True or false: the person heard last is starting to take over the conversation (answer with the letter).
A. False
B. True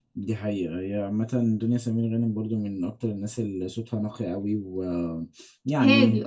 B